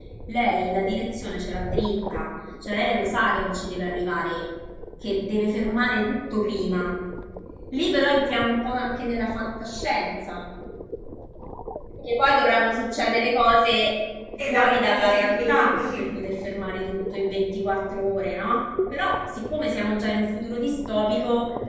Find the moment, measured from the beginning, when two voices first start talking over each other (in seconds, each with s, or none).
14.4 s